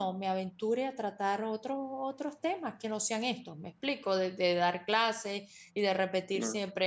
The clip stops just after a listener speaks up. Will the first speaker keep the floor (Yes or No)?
Yes